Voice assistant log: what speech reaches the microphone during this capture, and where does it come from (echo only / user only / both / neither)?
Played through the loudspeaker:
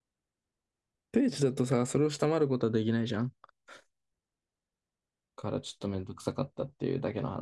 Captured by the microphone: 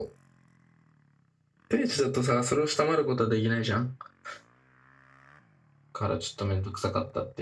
echo only